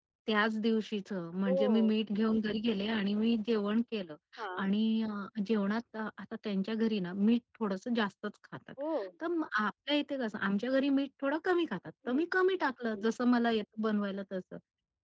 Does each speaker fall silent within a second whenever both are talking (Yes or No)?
Yes